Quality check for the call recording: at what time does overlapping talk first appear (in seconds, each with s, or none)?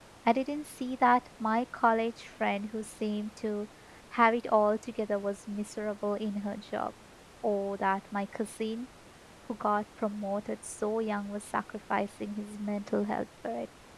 none